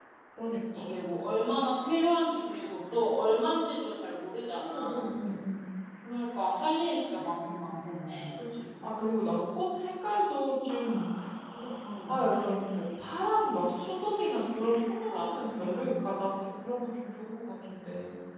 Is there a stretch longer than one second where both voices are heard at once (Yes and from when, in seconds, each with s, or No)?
No